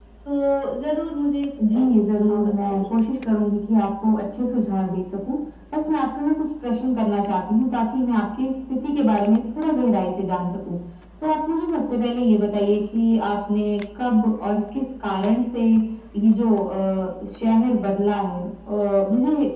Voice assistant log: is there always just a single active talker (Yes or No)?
No